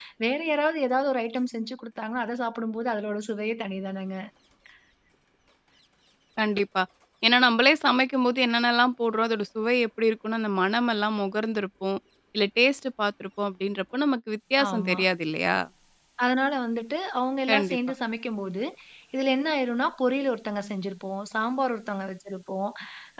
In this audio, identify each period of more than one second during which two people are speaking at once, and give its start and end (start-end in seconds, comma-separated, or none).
none